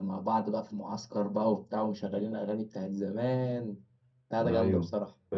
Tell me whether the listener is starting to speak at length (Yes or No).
Yes